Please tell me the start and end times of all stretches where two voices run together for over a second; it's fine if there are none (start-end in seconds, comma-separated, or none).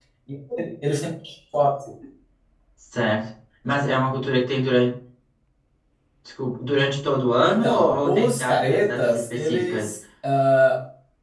7.4-9.9